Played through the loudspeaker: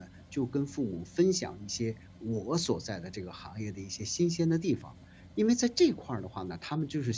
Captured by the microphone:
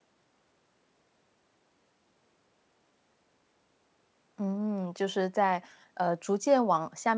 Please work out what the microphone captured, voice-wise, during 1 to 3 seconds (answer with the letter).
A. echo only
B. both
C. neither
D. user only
C